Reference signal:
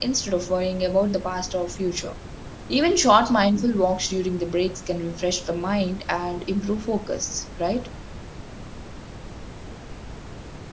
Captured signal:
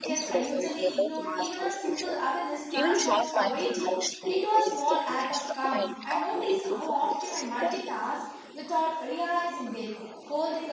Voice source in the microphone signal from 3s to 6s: both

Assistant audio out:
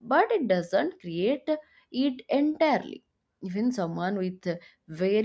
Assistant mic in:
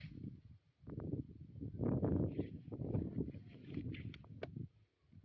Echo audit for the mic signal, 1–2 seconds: neither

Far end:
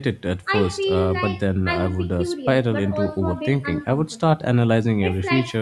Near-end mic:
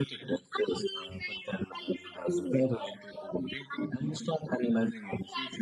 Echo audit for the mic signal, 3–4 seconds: echo only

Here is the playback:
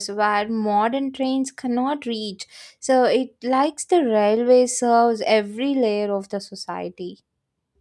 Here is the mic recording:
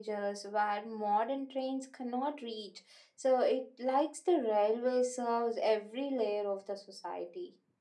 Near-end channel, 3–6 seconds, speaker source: echo only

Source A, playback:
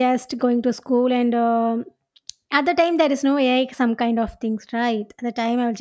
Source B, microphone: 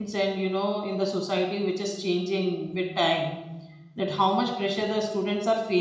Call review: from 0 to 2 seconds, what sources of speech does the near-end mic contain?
user only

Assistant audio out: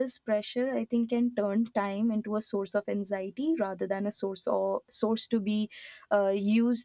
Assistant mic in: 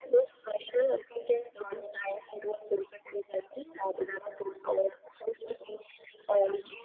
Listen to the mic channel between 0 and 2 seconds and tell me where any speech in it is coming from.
echo only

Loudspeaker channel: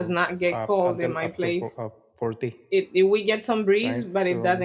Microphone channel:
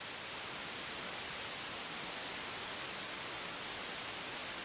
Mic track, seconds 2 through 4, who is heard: neither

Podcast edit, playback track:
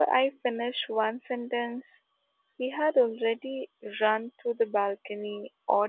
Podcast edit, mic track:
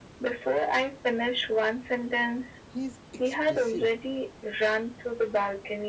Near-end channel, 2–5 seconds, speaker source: both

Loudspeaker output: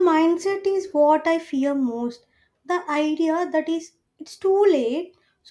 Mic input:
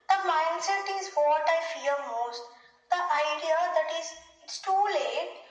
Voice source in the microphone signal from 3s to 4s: echo only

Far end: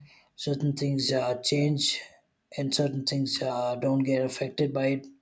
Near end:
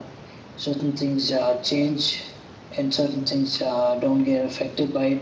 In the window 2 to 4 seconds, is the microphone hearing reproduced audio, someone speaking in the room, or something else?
echo only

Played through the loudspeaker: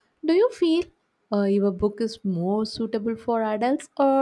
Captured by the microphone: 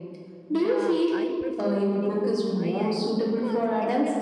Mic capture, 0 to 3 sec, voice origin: both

